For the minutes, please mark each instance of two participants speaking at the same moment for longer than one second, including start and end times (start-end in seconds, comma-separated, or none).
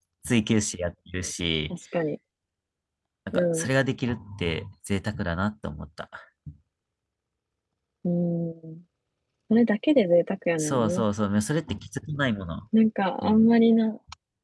none